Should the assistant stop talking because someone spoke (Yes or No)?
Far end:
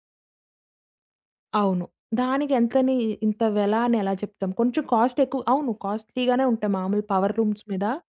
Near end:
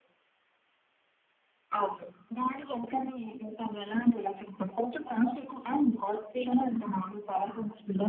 No